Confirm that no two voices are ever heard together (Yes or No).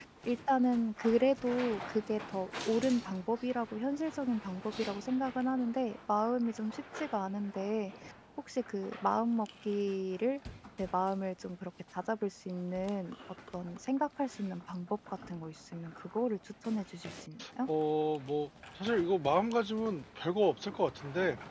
Yes